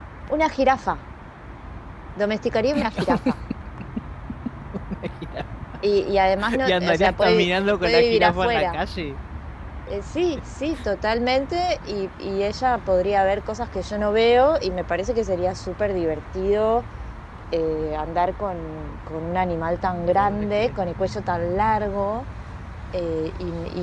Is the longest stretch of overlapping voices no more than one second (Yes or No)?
No